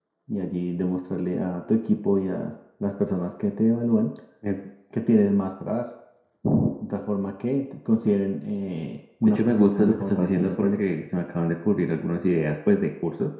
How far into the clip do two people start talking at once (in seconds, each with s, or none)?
9.2 s